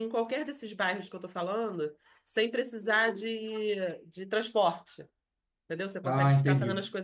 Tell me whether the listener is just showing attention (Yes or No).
Yes